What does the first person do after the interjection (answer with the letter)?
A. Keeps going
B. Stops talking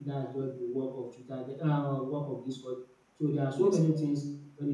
A